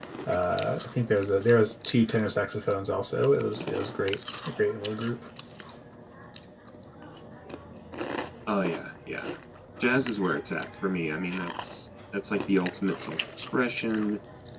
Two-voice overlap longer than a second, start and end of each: none

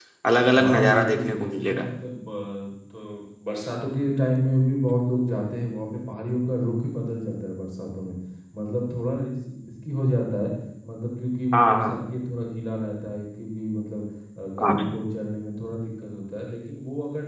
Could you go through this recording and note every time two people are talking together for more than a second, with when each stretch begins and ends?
0.6-1.9

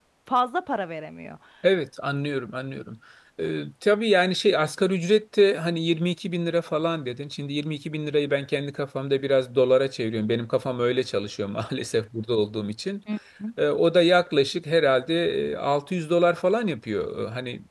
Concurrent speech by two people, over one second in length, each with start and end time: none

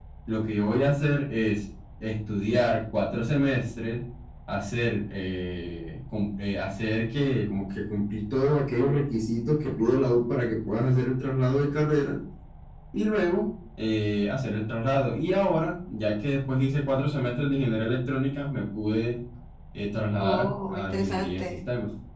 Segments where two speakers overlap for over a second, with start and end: 20.2-21.6

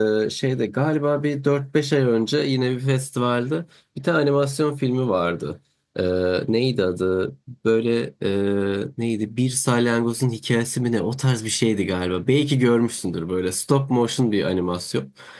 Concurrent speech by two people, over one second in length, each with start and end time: none

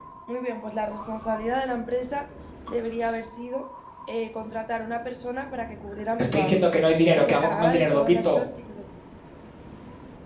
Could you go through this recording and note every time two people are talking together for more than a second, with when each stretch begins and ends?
7.1-8.4

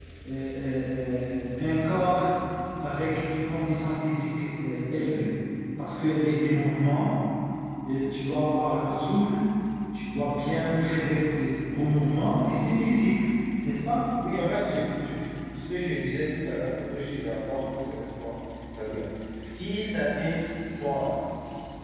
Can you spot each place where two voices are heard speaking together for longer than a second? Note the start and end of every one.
none

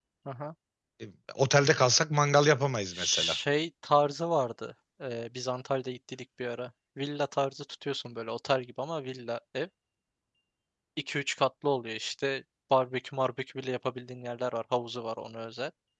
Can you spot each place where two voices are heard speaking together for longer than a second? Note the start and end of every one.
none

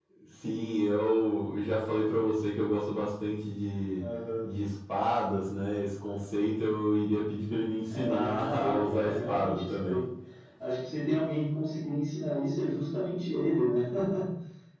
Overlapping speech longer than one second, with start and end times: 7.9-10.0

